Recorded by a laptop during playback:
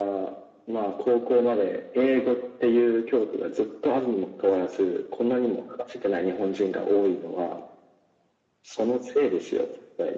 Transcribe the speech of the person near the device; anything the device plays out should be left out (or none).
none